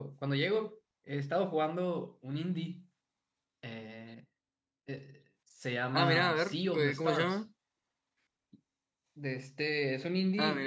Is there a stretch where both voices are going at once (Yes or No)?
Yes